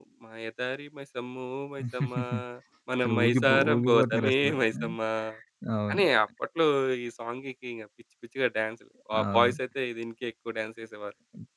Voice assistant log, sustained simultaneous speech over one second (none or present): present